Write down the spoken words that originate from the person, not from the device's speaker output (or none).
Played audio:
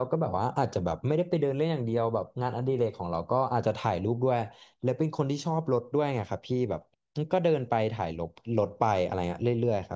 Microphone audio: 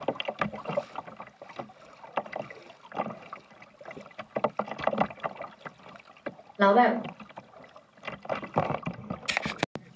แล้วแบบ